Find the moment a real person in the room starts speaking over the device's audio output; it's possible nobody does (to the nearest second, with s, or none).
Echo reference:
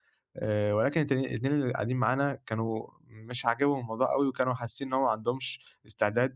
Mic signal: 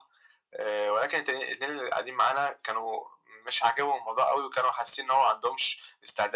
none